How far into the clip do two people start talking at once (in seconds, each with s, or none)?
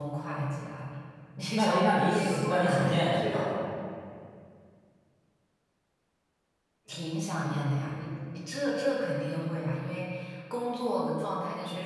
1.6 s